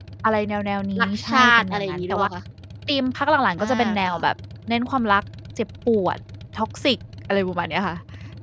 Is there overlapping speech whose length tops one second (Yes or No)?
Yes